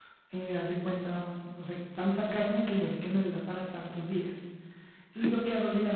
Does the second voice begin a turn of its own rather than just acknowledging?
No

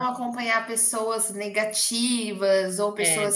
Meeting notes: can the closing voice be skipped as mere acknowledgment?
Yes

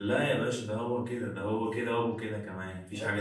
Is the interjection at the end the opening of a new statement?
Yes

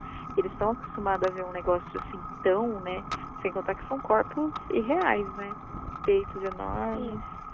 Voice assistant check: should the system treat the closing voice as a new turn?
No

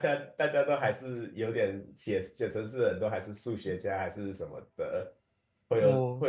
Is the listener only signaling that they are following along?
Yes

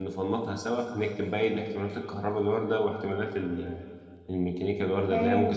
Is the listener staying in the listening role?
No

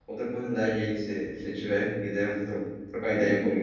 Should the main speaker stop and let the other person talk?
Yes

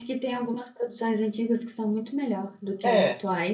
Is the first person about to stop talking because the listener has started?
Yes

